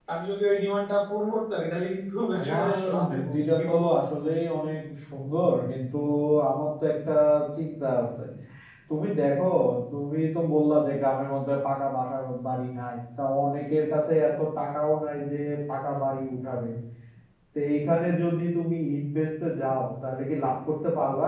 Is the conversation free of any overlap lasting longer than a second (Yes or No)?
No